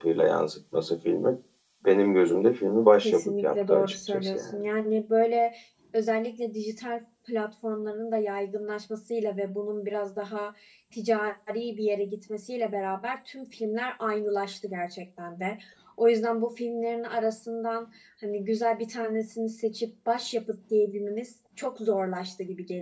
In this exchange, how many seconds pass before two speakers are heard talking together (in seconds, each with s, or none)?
3.0 s